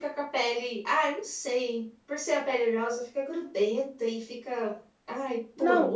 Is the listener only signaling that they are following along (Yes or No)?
No